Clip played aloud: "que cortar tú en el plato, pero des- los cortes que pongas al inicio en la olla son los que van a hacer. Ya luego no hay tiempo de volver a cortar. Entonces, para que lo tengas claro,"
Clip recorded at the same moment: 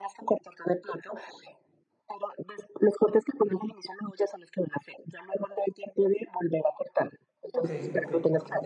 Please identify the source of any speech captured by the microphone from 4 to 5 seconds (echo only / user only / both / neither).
echo only